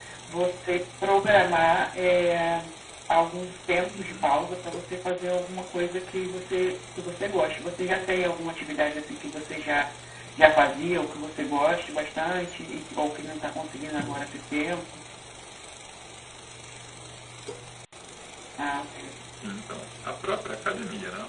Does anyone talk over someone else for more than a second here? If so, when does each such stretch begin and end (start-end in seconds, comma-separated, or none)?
none